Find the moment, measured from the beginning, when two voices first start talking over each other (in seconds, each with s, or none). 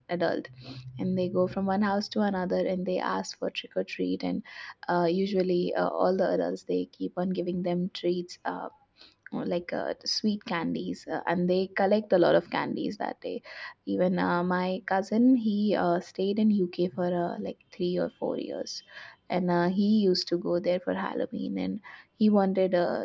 none